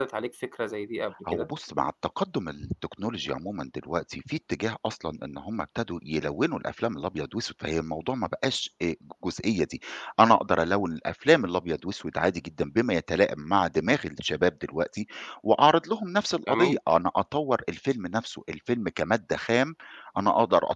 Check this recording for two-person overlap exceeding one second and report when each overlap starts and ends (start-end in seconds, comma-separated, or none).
none